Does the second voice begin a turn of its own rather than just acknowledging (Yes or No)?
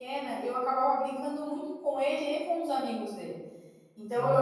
No